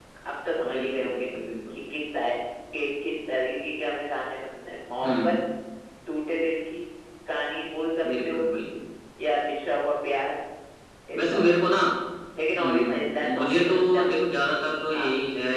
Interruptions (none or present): present